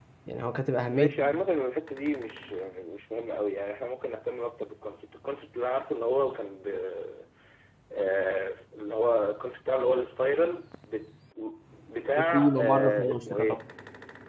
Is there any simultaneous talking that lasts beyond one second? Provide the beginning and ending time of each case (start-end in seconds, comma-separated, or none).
12.3-13.6